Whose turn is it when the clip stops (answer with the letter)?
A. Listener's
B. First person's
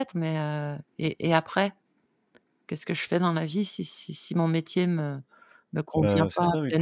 A